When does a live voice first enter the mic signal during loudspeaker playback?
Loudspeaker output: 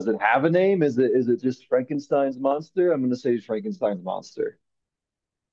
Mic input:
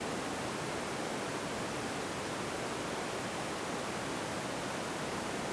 none

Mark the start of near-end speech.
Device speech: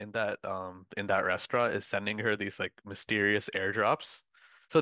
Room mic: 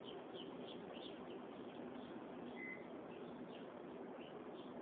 none

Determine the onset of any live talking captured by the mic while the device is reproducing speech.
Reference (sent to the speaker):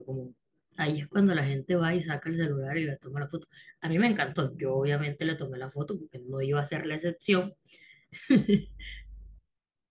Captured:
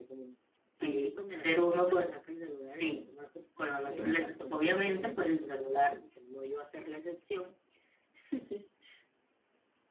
0.8 s

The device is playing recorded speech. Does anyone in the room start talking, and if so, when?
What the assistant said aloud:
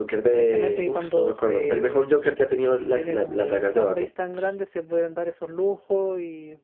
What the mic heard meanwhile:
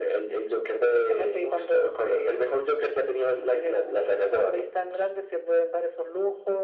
none

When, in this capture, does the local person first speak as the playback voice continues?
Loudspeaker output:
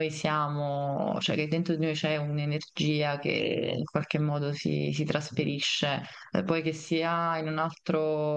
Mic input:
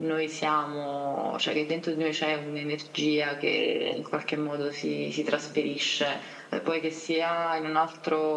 none

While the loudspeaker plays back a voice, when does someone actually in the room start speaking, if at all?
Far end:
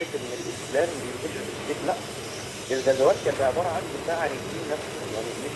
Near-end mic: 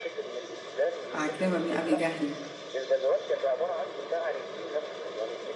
1.1 s

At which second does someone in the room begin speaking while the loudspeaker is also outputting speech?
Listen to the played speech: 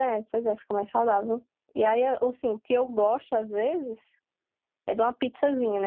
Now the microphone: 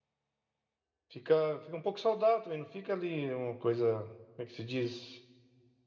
1.1 s

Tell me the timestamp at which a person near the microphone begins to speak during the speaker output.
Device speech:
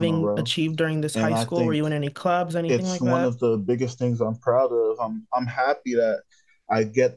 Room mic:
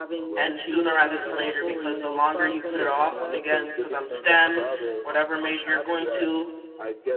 0.3 s

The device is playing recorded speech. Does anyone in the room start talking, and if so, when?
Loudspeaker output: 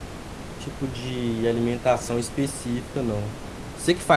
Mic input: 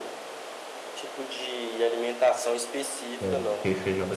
3.2 s

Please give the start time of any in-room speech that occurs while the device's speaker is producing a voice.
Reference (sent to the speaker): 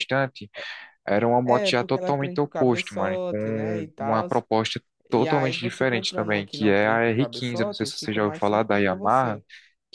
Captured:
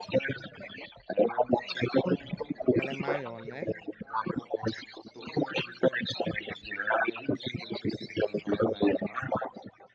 2.7 s

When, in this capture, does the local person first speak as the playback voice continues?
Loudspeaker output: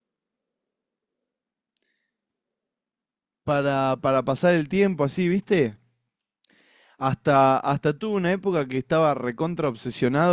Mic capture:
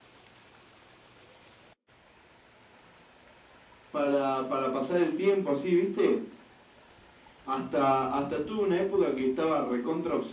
none

